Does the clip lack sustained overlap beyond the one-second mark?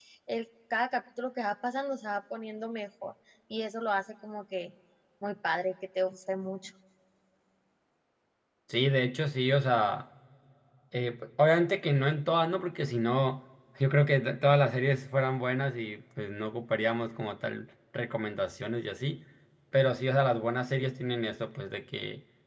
Yes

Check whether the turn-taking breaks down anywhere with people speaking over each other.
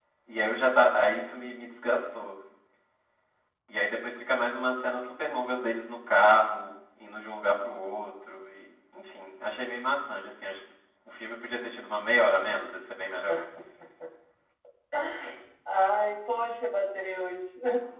No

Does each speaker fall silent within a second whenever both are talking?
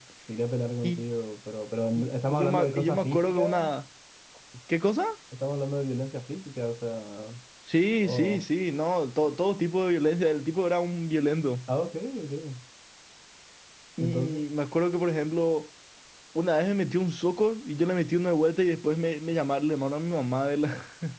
No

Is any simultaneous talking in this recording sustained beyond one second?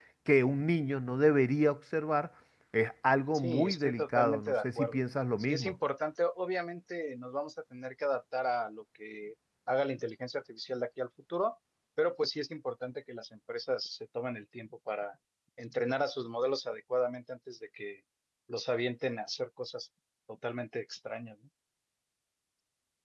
Yes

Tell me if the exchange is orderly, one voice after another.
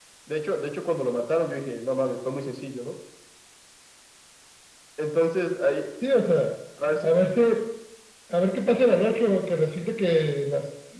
Yes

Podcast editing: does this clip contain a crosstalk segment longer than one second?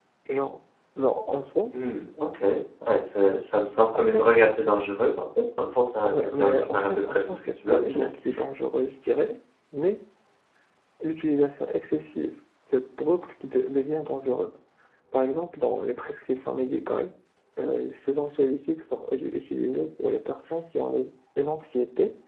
Yes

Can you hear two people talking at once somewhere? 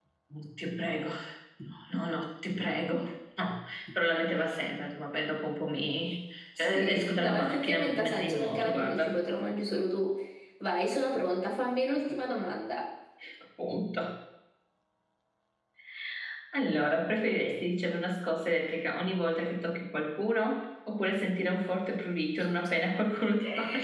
Yes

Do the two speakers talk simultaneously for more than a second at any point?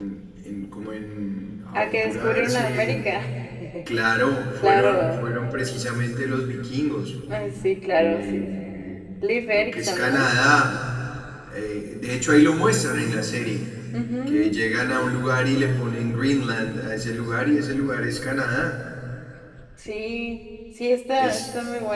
Yes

